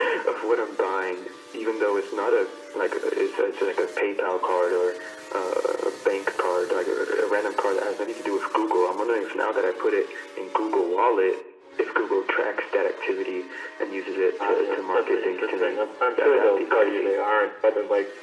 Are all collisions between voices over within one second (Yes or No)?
No